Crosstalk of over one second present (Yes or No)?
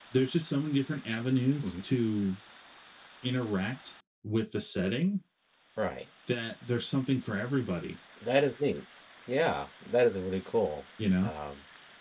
No